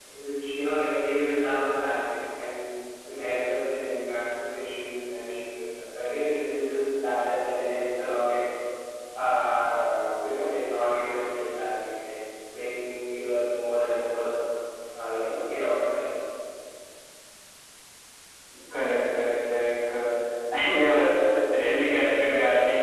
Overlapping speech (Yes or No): No